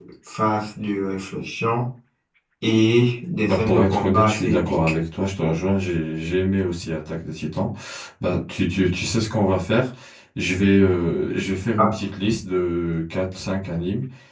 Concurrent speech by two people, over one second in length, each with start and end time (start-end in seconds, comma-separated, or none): 3.5-4.8